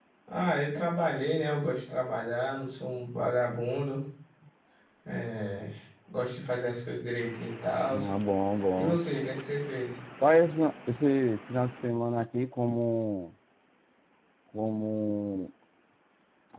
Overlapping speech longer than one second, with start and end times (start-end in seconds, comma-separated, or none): none